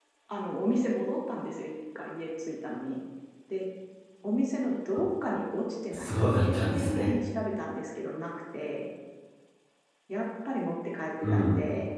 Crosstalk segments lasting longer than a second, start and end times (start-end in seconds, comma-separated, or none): 5.9-7.1